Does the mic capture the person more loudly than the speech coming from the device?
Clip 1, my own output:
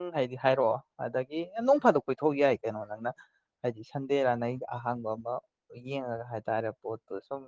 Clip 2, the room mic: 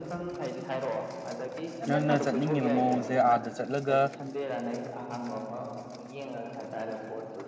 Yes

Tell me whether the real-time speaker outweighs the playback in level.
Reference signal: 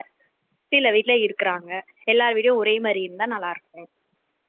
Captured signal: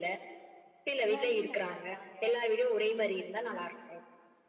No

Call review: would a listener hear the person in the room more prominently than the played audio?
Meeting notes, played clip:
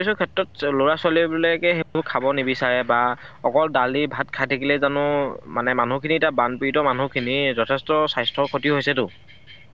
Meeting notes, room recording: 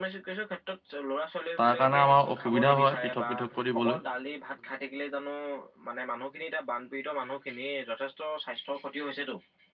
Yes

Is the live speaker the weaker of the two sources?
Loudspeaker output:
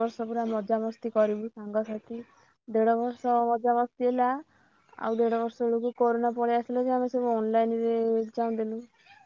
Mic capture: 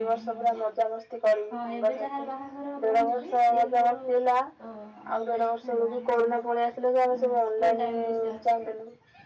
Yes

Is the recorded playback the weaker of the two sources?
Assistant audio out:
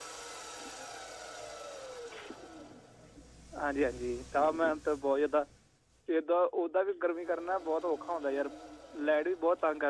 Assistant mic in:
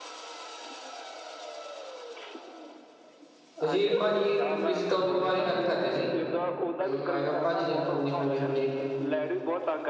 Yes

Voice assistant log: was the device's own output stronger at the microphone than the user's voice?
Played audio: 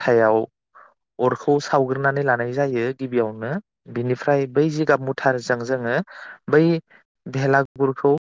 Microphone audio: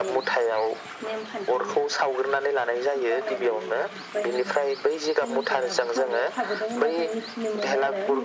Yes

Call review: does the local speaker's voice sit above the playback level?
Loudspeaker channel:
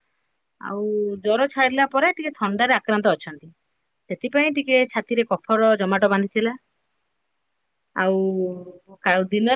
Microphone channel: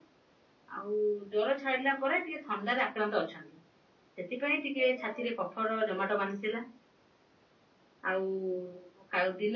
No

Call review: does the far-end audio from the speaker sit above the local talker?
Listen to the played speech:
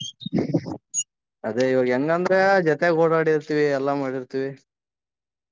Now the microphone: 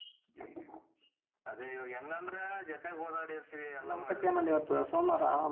No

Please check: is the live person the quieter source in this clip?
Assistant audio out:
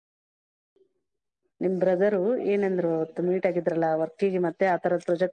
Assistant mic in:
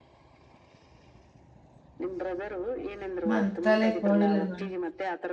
No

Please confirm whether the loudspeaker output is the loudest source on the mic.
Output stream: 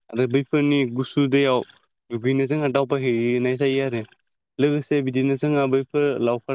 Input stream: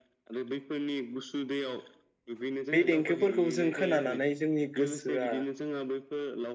No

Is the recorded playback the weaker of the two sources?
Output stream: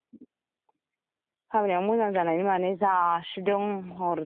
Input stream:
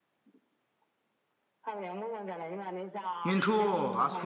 Yes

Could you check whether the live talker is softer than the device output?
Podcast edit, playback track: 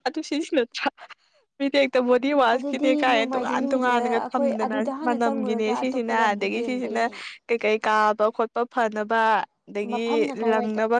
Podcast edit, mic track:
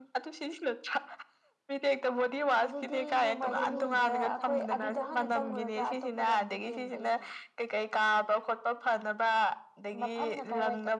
Yes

